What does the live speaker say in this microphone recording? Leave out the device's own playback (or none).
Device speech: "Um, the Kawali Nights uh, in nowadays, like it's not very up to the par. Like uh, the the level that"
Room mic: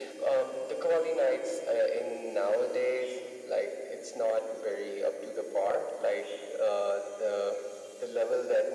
none